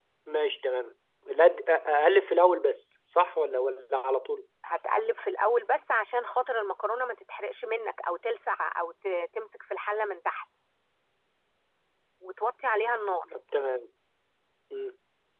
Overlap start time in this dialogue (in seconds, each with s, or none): none